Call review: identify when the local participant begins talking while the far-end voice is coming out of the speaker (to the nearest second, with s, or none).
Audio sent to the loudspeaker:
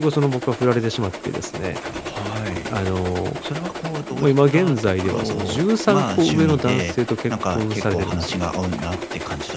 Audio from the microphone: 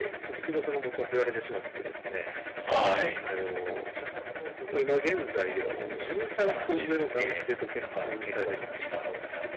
3 s